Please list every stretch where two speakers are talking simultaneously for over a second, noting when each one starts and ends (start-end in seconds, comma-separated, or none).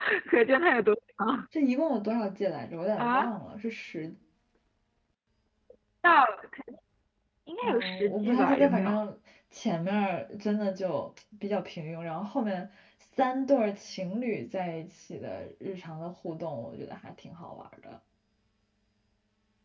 7.6-8.9